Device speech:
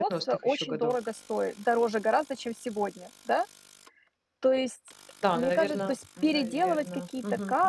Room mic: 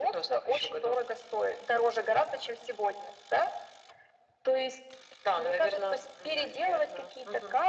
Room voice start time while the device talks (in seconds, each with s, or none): none